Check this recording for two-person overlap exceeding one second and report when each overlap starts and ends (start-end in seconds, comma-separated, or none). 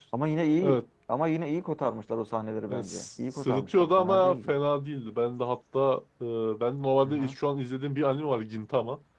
2.7-4.5